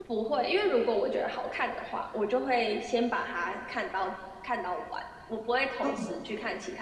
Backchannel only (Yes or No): Yes